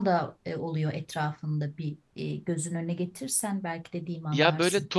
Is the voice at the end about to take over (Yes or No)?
Yes